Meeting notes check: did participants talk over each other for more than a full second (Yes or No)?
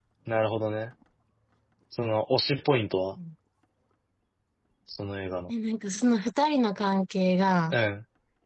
No